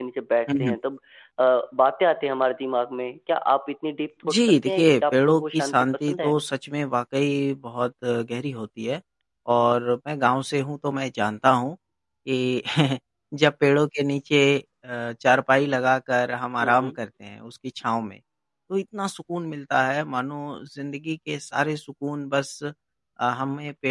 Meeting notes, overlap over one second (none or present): present